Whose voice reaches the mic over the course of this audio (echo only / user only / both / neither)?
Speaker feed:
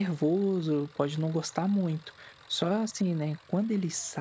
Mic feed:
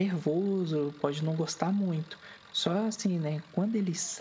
echo only